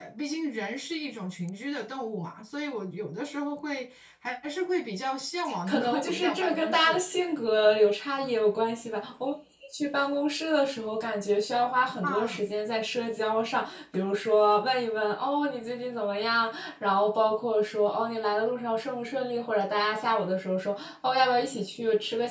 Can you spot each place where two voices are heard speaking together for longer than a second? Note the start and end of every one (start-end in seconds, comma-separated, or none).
5.7-7.0